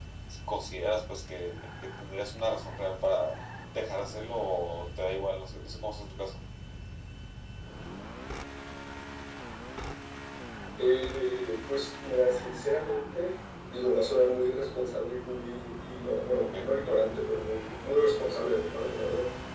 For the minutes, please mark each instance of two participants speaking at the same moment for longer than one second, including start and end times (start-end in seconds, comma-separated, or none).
none